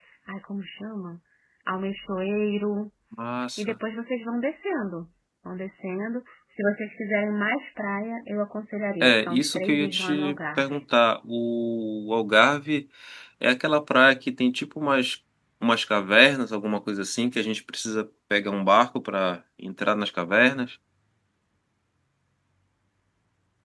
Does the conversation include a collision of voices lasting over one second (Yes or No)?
Yes